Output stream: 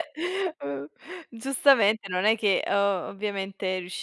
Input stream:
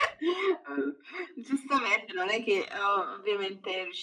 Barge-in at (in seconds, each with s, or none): none